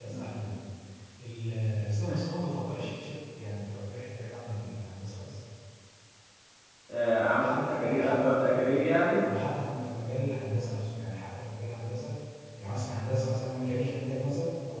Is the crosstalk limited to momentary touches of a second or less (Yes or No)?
No